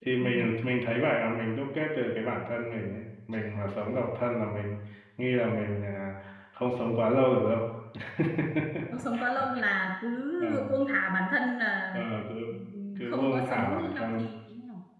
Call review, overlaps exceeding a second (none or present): present